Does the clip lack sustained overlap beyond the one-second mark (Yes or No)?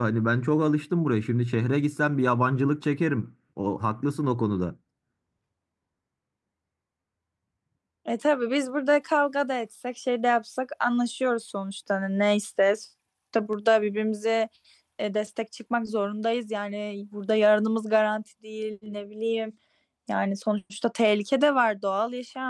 Yes